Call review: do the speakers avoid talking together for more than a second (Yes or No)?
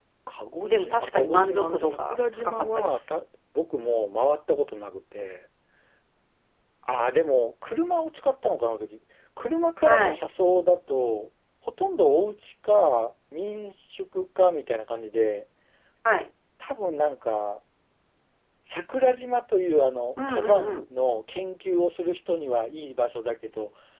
No